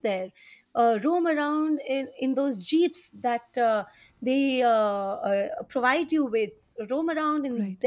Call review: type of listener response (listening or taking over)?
taking over